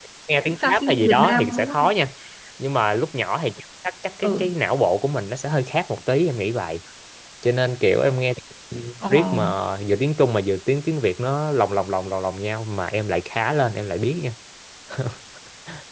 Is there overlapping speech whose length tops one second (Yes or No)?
Yes